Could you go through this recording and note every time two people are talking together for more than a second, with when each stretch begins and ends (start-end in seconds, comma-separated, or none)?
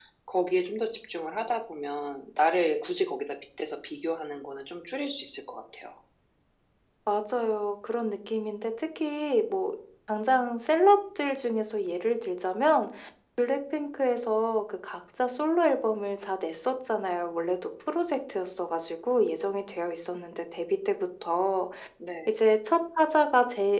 none